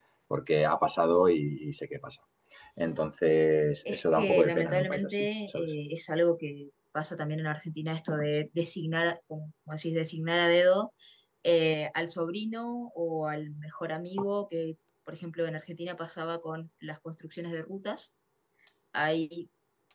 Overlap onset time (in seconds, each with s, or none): 3.9 s